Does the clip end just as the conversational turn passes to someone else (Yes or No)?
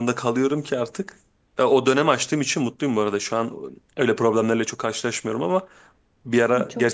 No